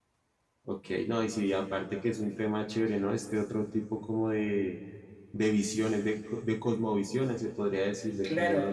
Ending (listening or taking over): taking over